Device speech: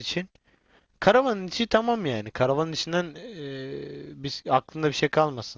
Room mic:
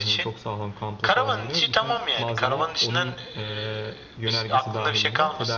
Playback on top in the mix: Yes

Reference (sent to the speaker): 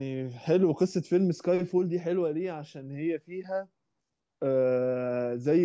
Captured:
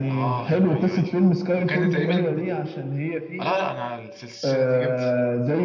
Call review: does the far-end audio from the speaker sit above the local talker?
Yes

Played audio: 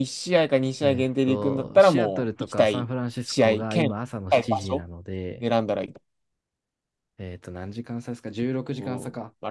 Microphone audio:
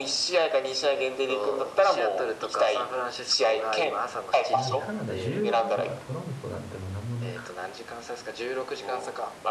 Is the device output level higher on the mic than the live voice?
Yes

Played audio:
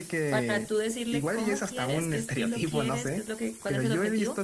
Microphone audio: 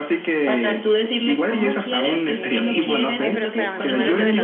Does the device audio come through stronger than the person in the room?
Yes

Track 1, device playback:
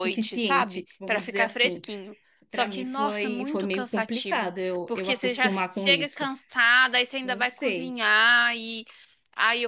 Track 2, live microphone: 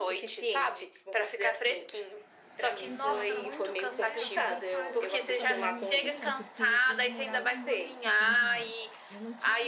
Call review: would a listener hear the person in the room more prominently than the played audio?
No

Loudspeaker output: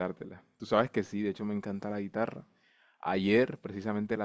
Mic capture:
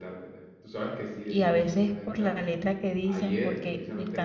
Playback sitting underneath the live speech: Yes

